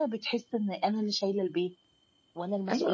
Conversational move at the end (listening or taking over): taking over